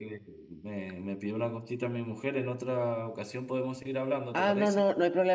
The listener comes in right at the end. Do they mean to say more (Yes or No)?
Yes